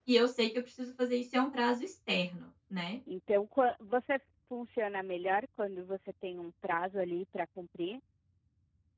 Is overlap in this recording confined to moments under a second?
Yes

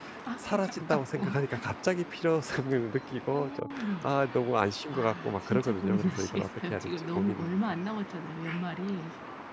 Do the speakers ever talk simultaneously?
Yes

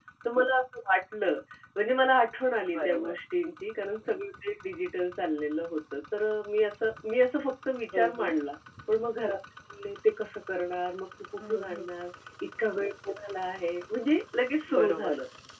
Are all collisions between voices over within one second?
Yes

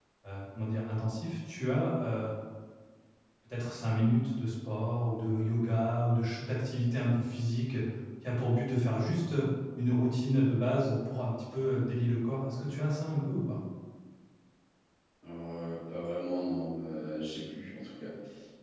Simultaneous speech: No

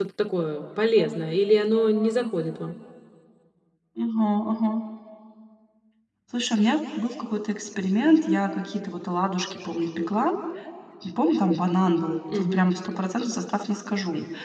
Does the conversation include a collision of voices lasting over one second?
No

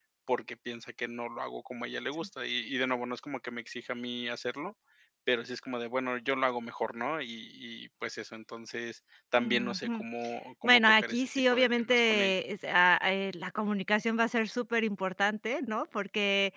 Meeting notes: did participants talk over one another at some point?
Yes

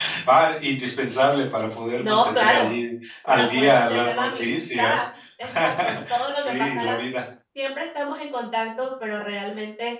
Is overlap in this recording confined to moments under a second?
No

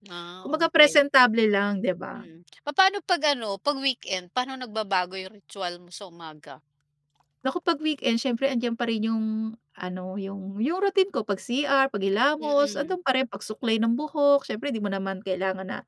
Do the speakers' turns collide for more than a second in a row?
No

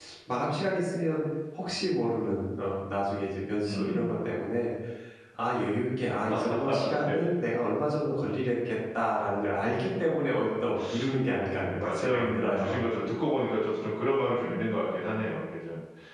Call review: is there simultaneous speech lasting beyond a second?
Yes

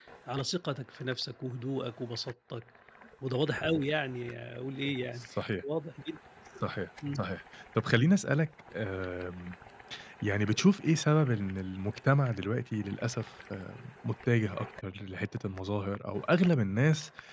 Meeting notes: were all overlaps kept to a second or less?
Yes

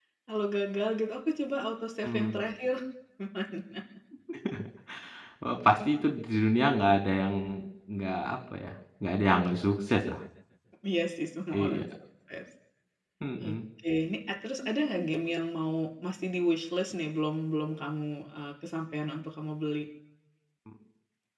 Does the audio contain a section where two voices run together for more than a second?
No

